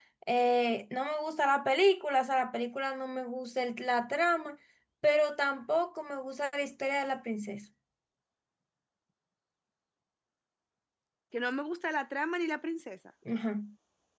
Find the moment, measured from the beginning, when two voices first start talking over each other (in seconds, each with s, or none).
none